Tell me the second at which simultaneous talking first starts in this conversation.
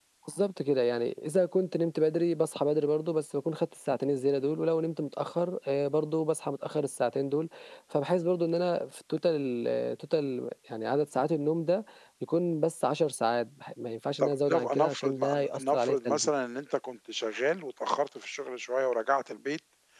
14.2 s

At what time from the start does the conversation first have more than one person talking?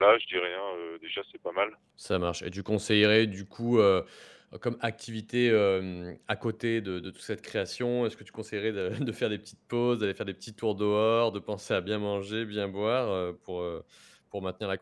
none

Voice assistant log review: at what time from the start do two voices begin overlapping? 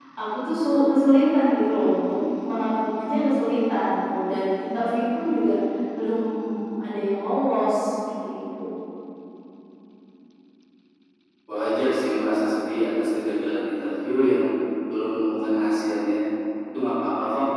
none

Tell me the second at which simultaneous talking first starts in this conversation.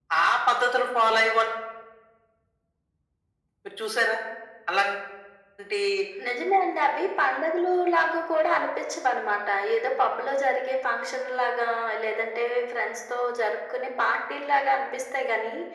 none

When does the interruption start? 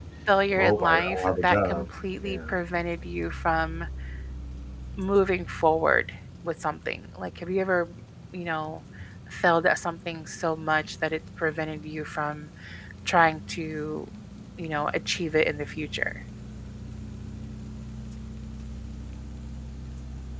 0.6 s

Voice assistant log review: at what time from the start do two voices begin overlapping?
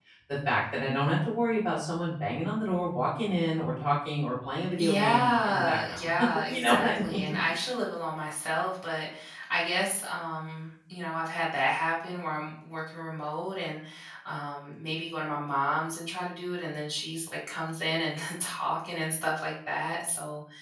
4.8 s

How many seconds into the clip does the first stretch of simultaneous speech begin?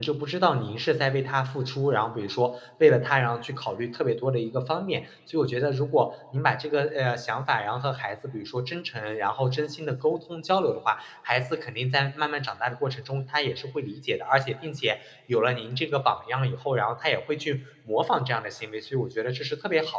none

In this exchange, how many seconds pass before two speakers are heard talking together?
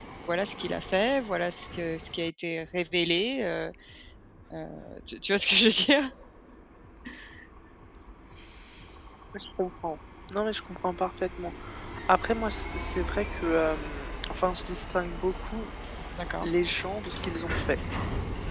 none

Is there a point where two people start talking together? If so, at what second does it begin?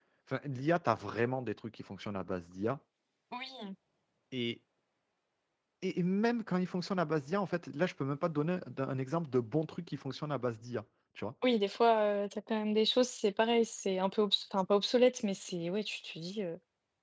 none

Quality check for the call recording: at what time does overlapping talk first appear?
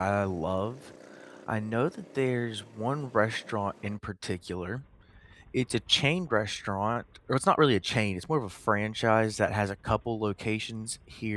none

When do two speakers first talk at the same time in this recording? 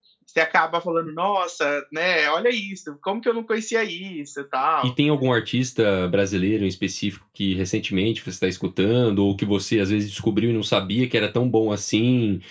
none

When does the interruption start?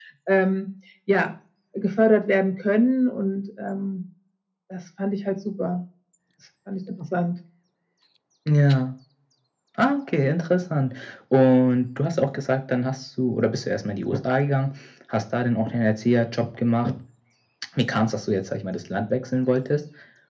none

